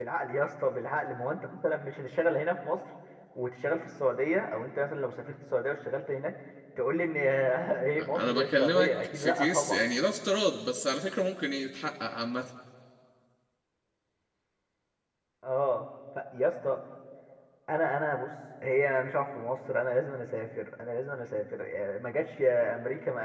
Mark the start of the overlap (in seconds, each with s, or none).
8.2 s